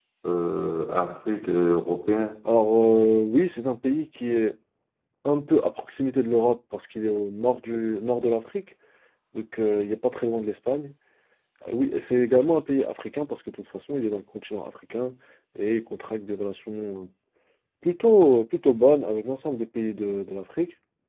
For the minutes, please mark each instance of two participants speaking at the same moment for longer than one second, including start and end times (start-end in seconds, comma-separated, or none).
none